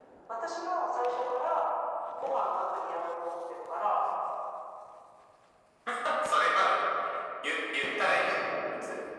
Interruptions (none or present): none